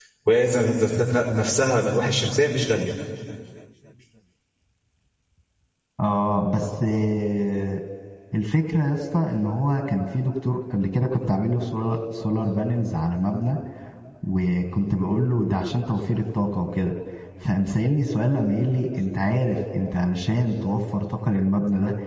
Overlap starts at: none

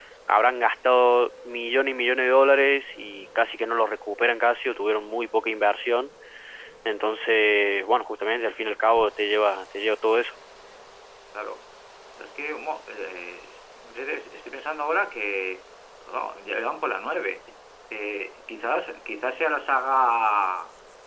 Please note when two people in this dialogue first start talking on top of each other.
none

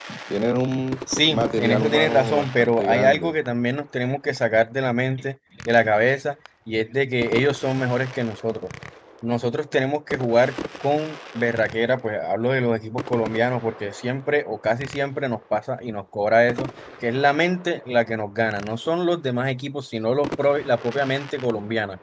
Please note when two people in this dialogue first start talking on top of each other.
1.3 s

